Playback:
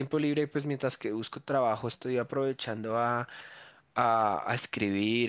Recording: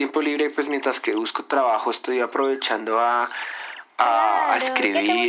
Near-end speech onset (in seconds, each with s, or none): 4.0 s